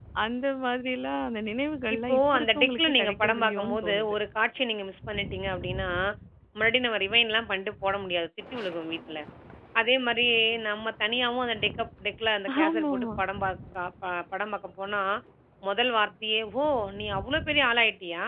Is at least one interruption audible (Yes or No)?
Yes